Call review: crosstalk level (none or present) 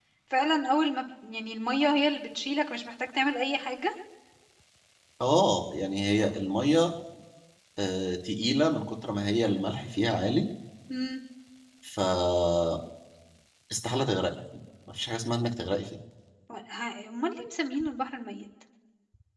none